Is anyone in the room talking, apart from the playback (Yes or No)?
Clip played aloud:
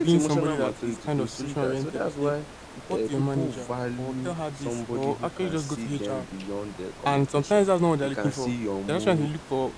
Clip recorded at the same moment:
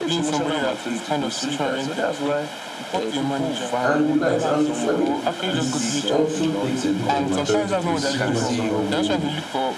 Yes